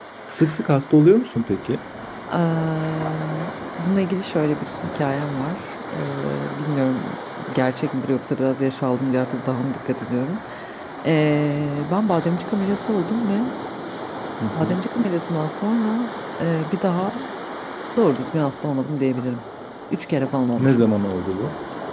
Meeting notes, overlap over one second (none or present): none